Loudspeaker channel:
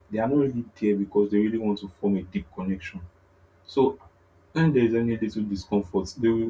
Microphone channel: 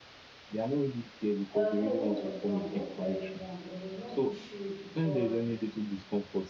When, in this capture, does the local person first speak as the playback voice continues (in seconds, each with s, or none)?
1.6 s